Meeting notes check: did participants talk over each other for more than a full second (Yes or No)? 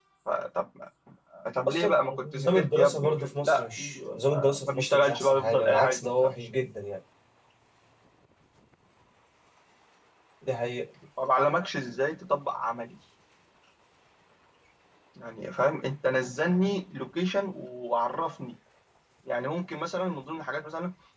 Yes